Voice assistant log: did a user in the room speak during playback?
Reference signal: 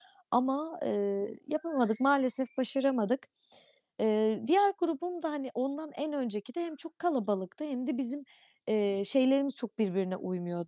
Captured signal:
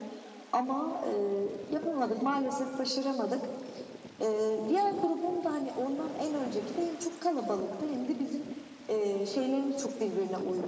No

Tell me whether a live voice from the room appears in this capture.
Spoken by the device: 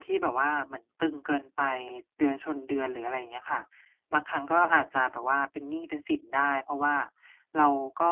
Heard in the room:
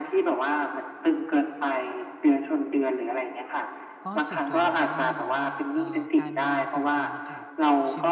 Yes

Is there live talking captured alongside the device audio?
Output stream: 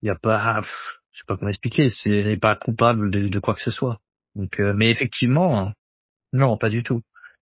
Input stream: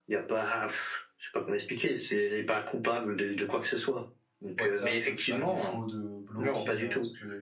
Yes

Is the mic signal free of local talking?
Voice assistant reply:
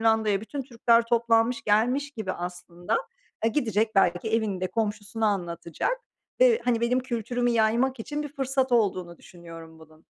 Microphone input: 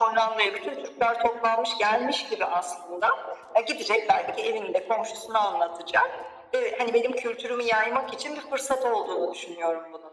Yes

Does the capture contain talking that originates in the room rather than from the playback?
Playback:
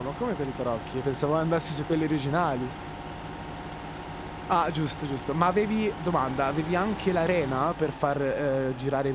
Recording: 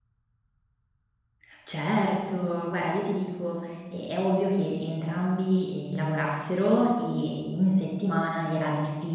Yes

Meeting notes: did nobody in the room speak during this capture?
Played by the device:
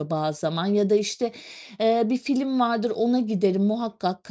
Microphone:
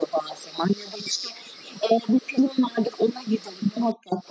Yes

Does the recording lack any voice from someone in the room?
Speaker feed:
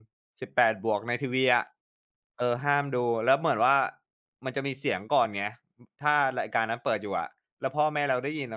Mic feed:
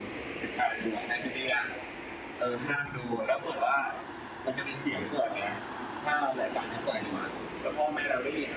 Yes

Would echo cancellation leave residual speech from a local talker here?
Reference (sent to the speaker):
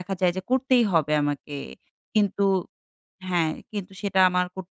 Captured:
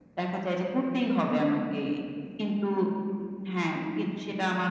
No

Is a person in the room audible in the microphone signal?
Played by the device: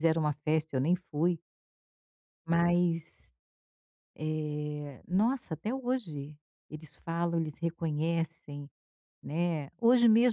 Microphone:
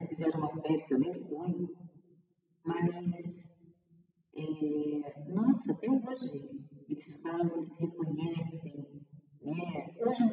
No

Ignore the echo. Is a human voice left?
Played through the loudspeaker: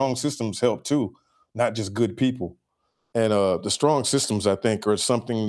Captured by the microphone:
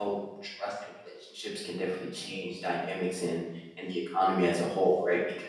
Yes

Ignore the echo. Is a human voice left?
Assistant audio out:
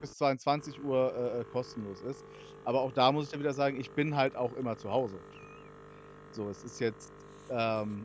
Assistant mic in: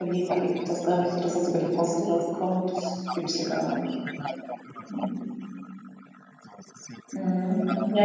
Yes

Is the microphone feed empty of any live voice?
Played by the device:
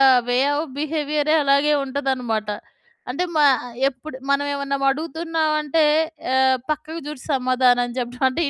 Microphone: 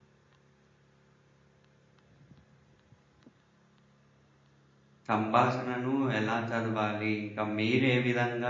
No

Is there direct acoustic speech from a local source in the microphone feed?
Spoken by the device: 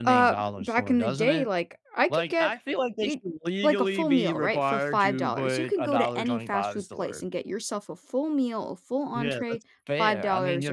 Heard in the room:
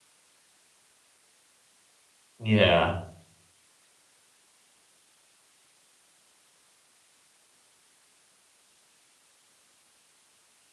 Yes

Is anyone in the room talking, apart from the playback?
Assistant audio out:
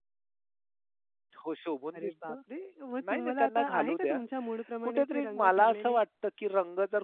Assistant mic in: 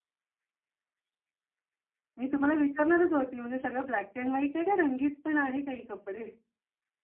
Yes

